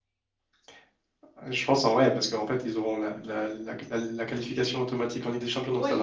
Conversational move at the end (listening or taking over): taking over